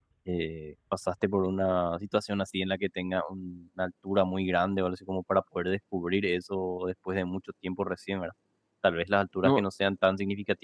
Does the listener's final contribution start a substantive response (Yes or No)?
No